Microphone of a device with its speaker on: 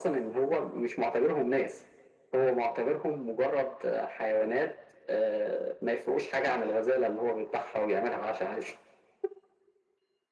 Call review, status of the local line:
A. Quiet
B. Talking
A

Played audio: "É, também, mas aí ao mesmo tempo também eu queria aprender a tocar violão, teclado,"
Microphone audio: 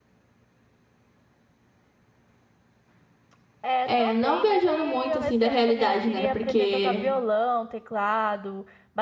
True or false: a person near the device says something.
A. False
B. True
B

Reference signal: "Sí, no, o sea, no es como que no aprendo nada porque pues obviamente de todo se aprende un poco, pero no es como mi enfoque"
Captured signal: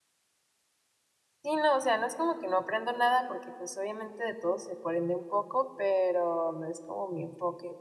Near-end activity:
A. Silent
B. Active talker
A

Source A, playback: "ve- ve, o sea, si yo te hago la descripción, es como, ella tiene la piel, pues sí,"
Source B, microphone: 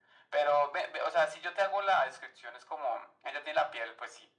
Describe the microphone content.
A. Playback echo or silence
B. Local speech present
A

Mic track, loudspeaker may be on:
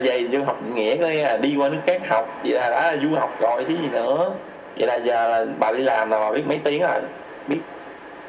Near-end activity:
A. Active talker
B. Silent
B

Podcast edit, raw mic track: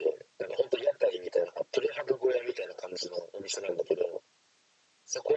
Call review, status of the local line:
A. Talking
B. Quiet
B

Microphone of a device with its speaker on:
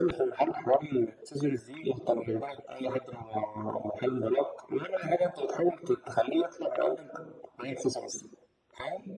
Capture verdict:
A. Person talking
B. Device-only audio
B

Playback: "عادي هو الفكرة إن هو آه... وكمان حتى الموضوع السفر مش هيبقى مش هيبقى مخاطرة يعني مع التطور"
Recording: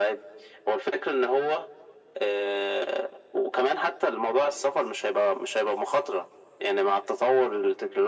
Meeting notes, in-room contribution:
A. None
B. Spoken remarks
A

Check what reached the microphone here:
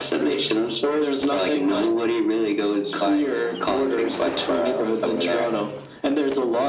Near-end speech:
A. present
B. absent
B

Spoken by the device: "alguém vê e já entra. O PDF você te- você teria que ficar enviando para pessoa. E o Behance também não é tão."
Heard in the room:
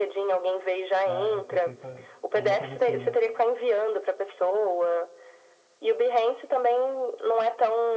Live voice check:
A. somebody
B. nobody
A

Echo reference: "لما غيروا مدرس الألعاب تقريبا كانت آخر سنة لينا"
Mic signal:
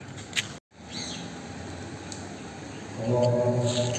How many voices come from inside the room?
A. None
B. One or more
B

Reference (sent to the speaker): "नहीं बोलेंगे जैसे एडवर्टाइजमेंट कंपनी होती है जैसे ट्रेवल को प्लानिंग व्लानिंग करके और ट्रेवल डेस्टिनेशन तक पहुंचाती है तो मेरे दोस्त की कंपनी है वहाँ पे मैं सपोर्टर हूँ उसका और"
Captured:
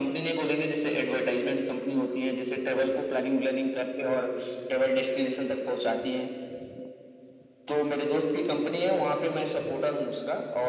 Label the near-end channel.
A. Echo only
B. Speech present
A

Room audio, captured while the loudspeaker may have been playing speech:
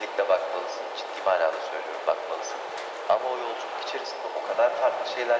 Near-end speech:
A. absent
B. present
A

